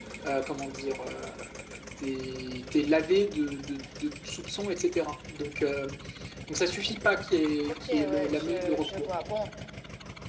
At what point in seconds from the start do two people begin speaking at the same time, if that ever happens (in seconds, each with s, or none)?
7.9 s